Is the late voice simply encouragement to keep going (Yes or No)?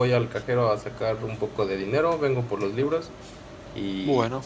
Yes